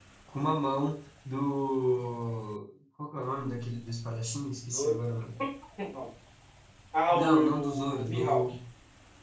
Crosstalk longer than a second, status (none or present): present